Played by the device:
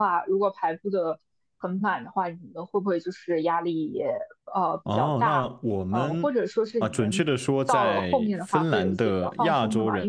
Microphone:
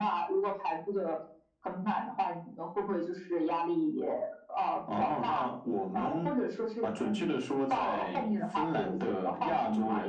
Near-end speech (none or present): none